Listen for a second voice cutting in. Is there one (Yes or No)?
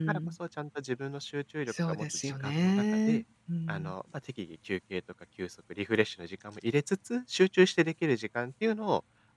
Yes